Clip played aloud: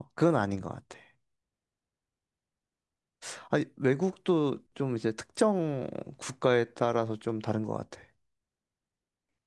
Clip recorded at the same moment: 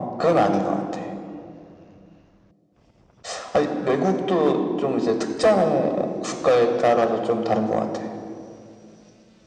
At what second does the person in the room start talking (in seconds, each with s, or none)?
none